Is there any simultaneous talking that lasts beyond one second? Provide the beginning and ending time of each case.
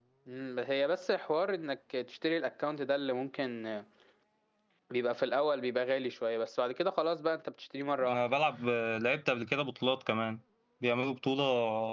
none

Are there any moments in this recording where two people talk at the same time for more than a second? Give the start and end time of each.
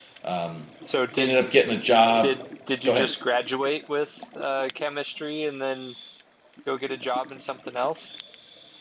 none

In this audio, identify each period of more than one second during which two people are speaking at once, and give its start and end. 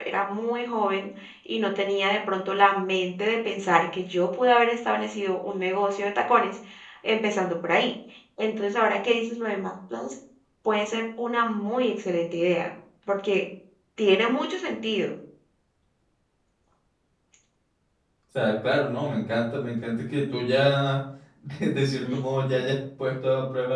none

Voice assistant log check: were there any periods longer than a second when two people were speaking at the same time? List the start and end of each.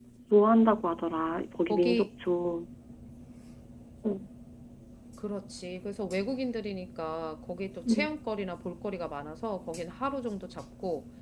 none

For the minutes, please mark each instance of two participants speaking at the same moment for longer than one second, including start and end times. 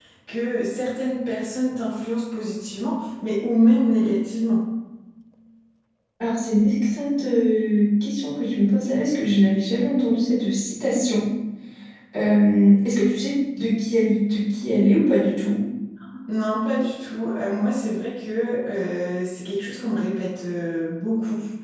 none

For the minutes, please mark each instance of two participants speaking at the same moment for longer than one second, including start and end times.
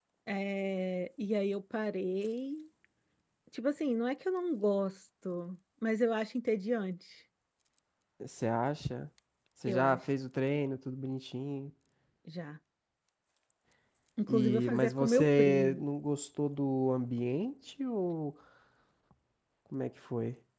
14.3-15.8

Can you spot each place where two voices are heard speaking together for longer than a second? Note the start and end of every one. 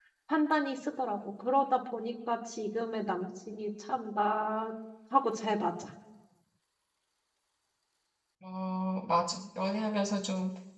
none

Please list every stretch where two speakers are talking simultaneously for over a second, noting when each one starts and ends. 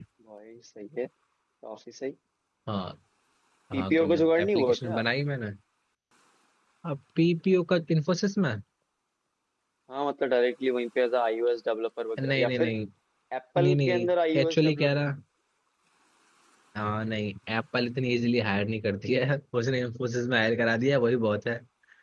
3.7-5.0, 13.6-14.9

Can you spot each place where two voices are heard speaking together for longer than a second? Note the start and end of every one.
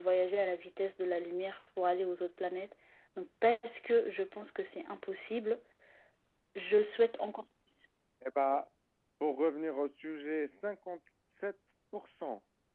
none

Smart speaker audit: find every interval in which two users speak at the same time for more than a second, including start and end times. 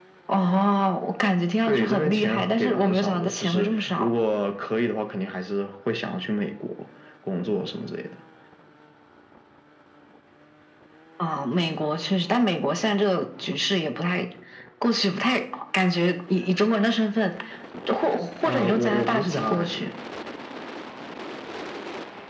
1.6-4.1, 18.4-19.9

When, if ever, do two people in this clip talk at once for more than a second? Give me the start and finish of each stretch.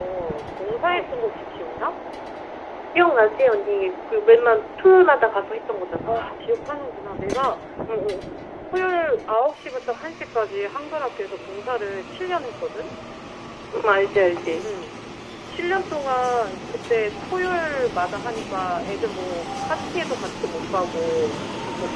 none

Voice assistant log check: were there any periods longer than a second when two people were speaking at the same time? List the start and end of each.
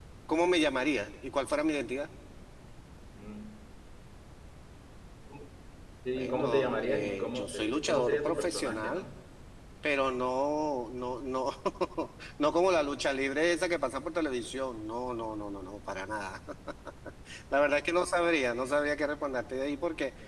6.2-9.1

